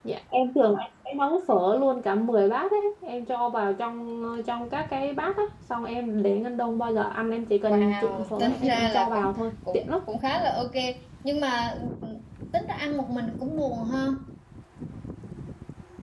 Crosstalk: present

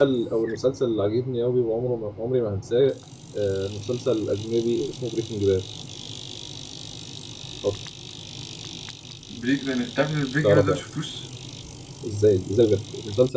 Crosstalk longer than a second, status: none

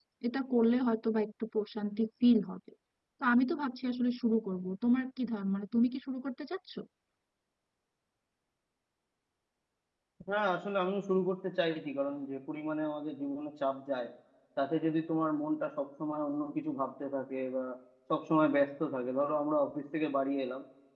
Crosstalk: none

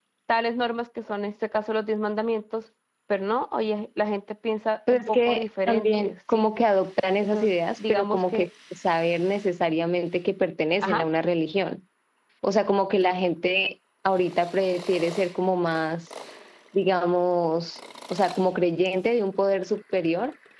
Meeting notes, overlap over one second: present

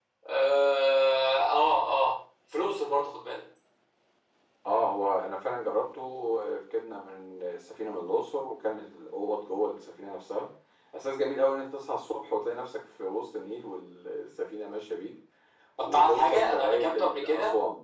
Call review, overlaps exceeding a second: present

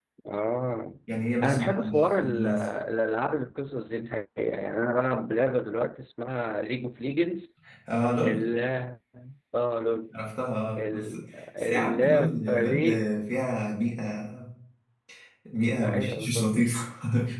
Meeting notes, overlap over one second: present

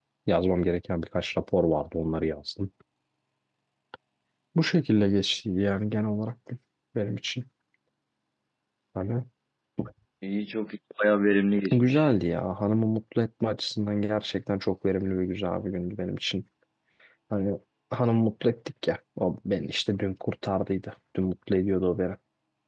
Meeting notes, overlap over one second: none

